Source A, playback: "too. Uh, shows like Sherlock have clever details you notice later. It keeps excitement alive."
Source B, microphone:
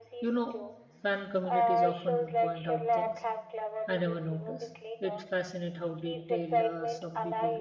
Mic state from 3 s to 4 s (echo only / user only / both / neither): both